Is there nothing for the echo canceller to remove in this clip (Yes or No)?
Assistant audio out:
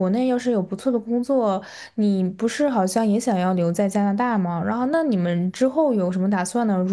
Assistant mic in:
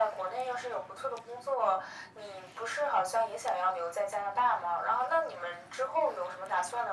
No